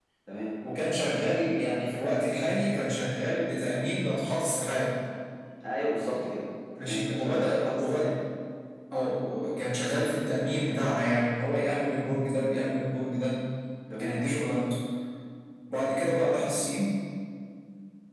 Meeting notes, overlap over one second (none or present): present